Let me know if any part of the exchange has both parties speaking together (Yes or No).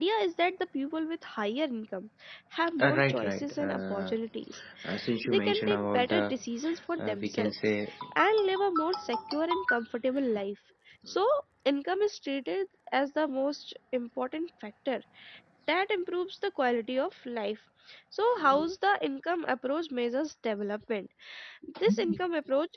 Yes